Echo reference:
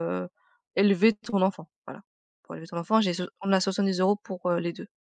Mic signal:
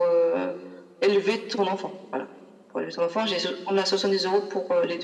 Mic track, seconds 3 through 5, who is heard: echo only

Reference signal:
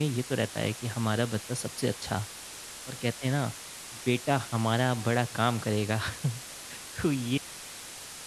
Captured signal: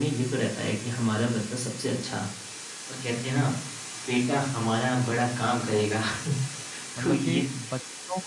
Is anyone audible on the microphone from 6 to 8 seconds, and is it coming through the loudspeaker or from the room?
both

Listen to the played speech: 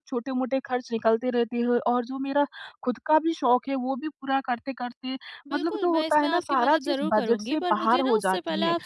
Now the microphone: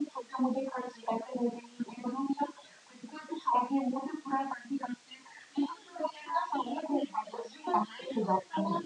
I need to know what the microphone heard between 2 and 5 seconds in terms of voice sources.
echo only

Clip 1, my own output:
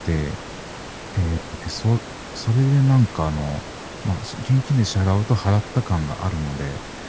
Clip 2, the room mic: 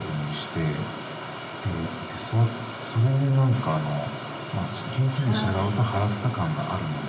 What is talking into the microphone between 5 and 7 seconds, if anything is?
both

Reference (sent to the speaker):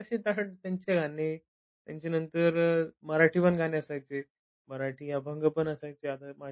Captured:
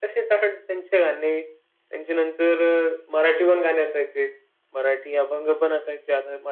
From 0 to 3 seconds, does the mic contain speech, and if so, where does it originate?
echo only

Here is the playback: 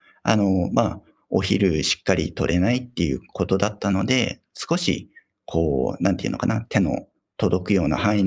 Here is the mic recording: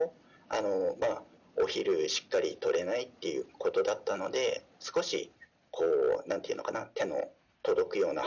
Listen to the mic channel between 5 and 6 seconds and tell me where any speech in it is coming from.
echo only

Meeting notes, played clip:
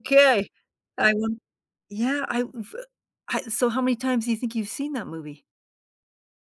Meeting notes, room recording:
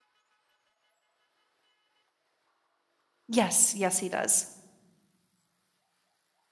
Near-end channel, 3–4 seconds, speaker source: user only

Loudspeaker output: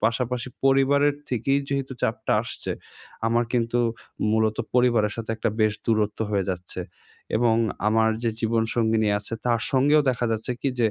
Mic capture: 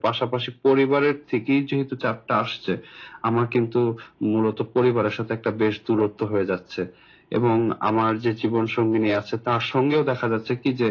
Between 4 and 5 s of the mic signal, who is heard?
echo only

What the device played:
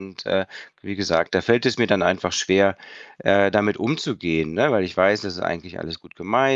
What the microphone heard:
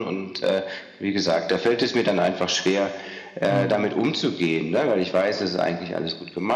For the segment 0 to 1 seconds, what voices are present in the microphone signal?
echo only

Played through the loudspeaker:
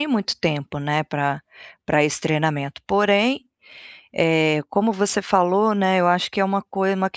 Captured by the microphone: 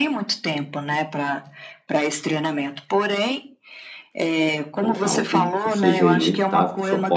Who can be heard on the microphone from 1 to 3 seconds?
echo only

